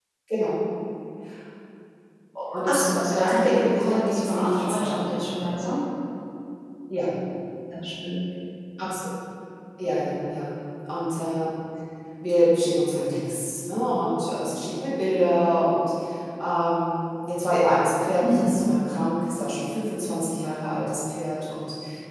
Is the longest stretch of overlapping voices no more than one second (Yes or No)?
No